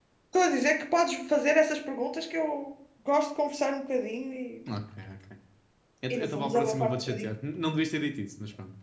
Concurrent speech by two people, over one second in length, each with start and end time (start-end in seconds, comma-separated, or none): 6.1-7.3